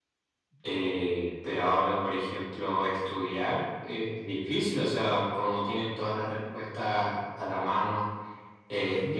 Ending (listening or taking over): listening